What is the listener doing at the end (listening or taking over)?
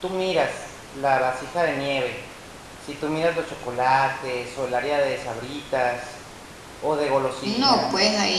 taking over